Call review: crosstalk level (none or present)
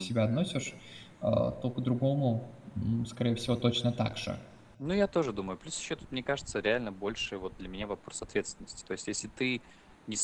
none